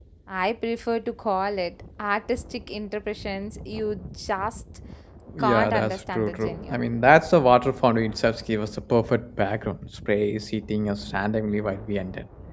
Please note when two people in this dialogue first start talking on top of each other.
5 s

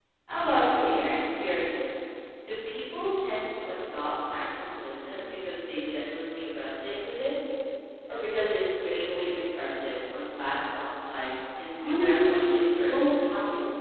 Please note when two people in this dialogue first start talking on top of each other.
12 s

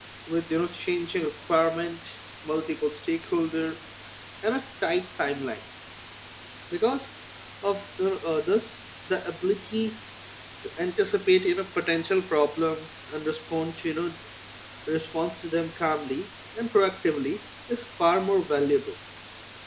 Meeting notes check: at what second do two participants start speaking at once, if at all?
none

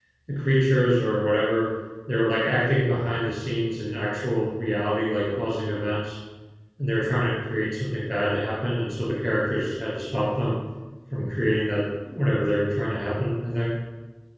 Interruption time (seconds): none

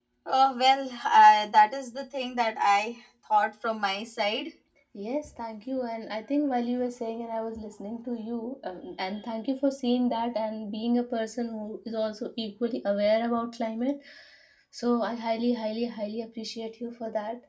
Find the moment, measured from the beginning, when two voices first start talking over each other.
none

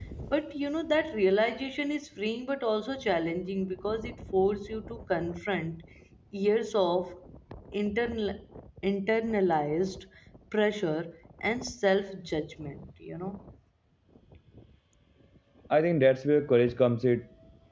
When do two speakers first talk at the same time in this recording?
none

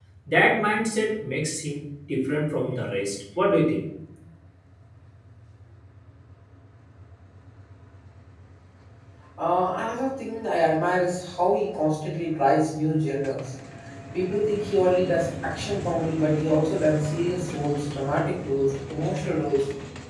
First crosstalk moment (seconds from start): none

